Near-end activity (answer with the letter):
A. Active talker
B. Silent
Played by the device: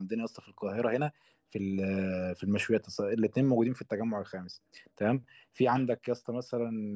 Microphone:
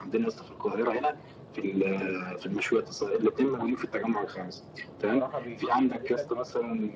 A